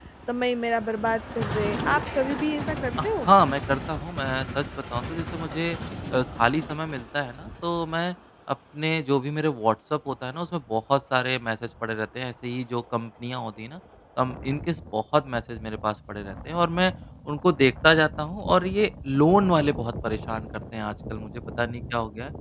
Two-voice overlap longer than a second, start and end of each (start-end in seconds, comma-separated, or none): none